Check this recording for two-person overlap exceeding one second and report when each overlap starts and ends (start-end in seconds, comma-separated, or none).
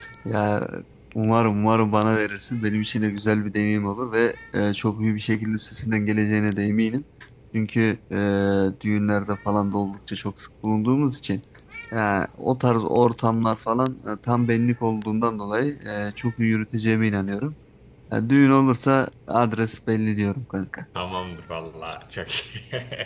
none